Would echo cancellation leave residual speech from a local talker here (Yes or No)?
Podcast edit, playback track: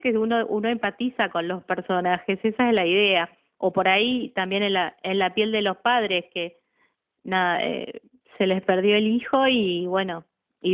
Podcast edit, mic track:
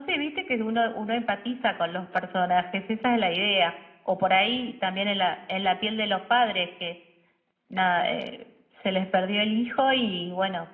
No